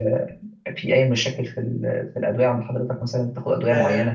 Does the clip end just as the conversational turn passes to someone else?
Yes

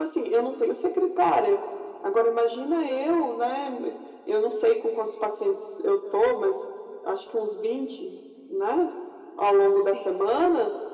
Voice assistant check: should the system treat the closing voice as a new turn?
No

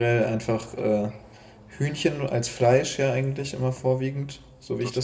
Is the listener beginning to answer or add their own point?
No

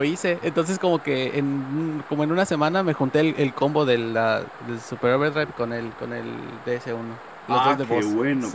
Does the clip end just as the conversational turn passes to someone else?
Yes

